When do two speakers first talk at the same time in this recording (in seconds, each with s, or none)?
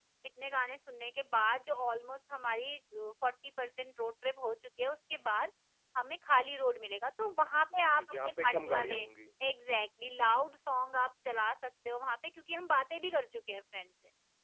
7.7 s